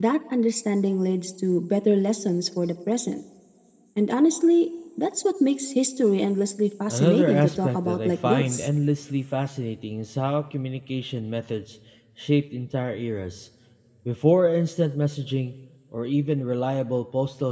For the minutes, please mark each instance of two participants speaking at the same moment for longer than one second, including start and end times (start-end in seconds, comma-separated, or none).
6.9-8.7